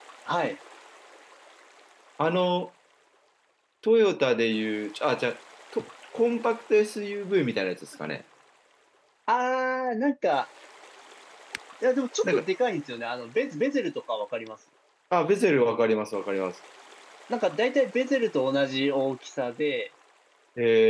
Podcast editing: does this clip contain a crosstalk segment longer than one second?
No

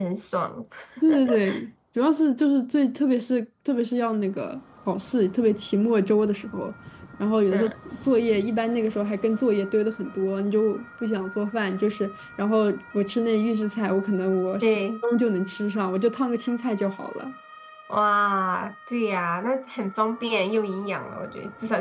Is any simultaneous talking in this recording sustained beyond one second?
No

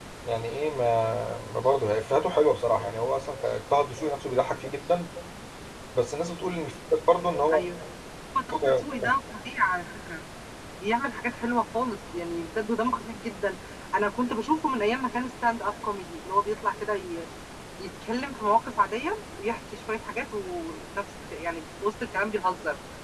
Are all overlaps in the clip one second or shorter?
Yes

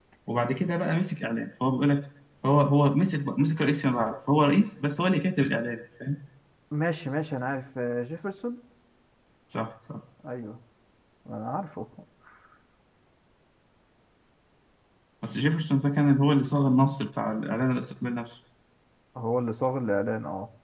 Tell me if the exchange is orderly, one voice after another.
Yes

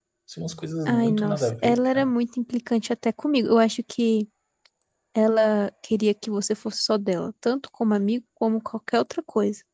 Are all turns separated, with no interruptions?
No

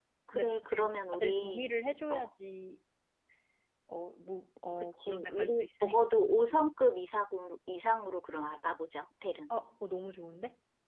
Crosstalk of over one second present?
Yes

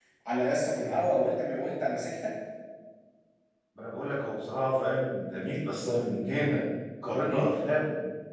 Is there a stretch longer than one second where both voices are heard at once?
No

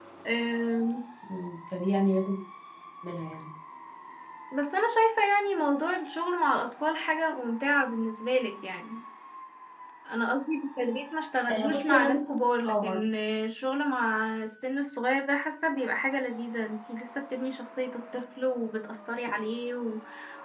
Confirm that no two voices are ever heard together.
No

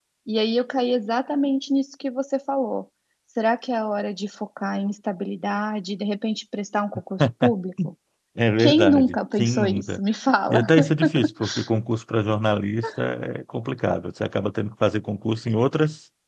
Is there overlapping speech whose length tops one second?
Yes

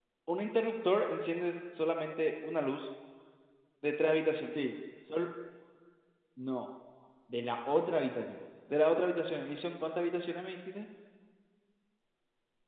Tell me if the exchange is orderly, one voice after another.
Yes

